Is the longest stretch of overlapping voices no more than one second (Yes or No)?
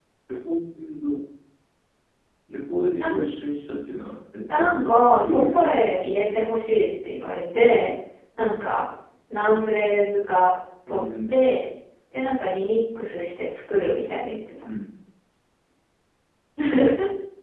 No